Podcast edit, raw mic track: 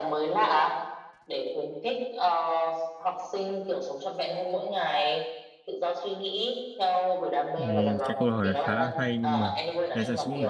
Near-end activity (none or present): present